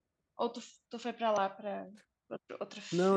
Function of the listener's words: taking over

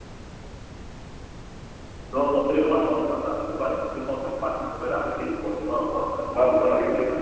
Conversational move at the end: taking over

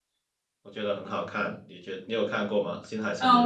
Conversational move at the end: taking over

